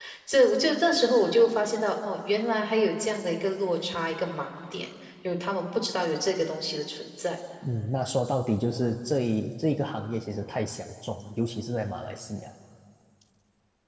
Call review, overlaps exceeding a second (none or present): none